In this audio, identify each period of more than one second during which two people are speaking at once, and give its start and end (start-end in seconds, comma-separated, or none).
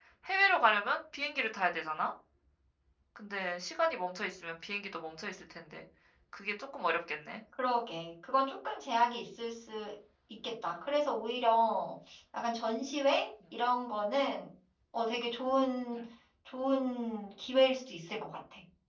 none